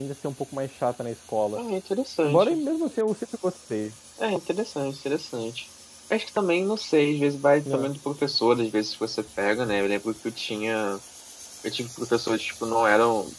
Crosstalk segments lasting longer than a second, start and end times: none

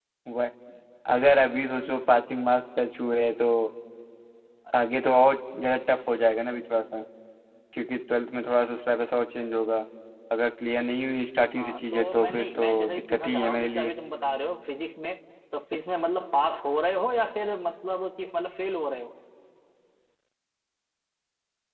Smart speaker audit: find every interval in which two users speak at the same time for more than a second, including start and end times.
11.6-13.9

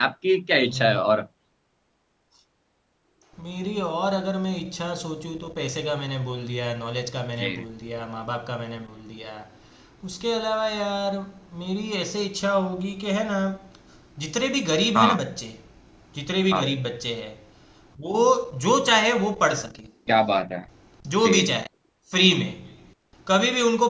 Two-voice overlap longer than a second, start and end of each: none

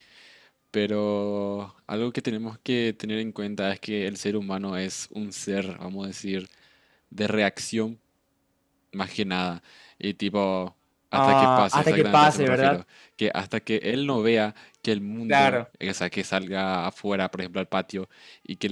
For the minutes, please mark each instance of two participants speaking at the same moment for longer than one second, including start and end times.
11.1-12.8

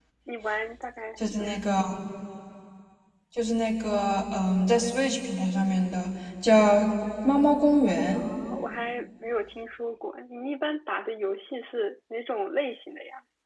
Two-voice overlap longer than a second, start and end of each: none

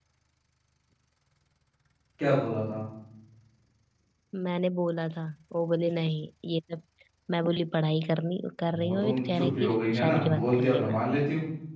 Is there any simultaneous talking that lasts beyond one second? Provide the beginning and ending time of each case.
8.8-11.0

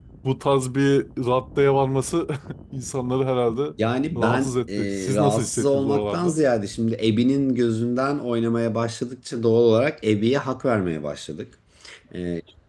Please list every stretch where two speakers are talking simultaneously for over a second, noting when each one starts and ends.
4.2-6.3

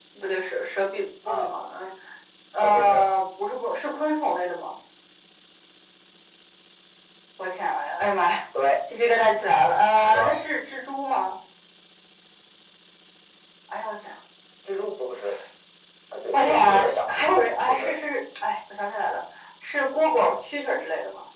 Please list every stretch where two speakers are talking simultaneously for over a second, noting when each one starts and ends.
16.3-17.9

